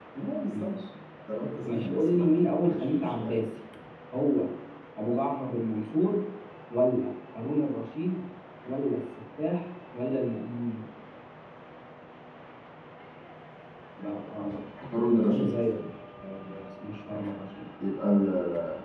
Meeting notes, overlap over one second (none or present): present